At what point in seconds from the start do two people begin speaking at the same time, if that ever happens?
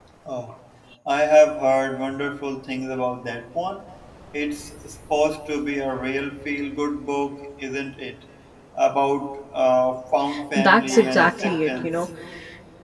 10.3 s

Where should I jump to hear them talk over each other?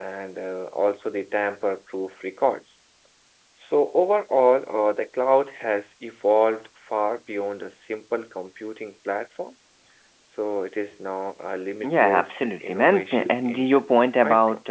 11.8 s

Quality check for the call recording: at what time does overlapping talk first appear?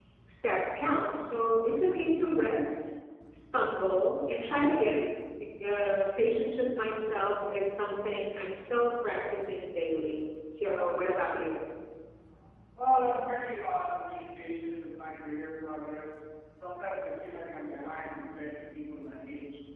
none

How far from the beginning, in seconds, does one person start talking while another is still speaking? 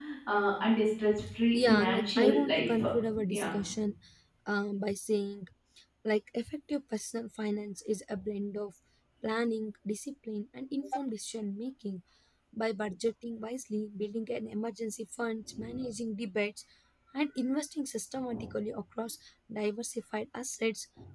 1.5 s

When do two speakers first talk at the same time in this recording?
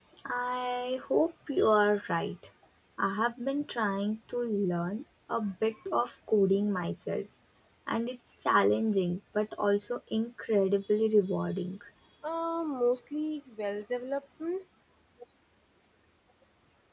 none

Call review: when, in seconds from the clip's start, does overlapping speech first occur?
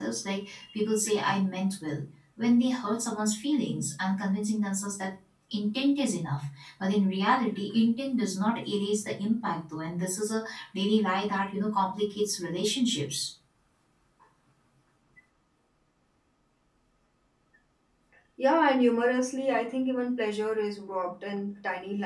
none

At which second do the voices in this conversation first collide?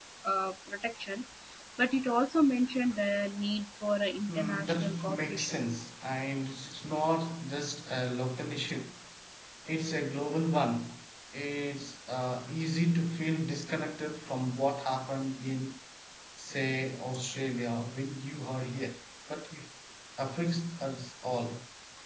4.3 s

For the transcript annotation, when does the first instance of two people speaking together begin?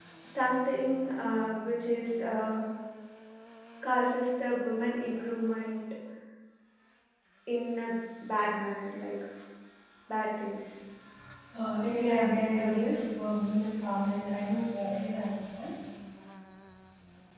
11.8 s

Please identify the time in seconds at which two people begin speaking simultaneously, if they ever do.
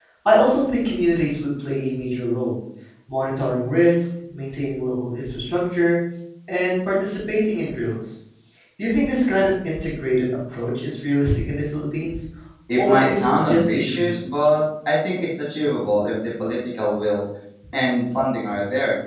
12.8 s

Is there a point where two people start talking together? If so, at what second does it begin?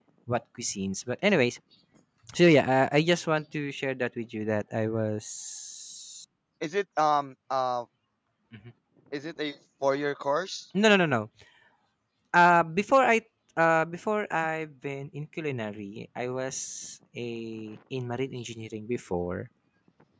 none

